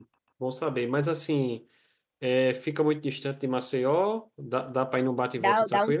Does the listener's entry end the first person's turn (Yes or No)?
Yes